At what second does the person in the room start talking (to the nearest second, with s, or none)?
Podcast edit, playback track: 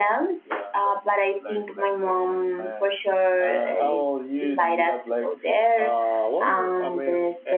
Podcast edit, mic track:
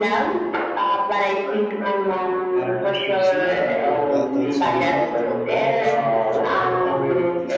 3 s